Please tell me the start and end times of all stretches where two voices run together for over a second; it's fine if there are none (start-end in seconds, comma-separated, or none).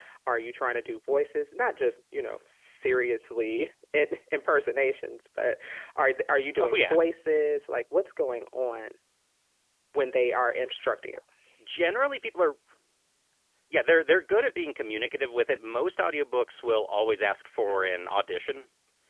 none